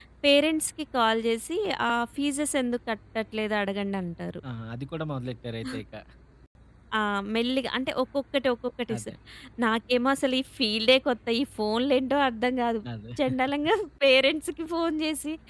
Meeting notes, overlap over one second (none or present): none